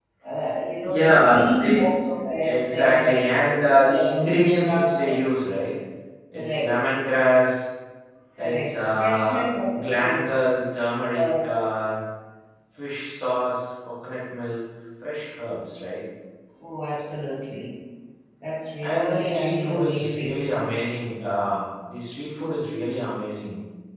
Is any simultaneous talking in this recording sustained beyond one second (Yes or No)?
Yes